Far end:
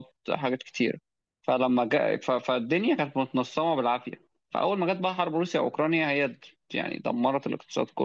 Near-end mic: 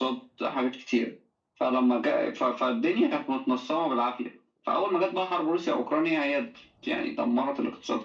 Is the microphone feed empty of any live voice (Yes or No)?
Yes